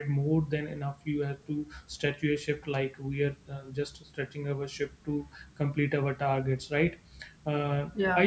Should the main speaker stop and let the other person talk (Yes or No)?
No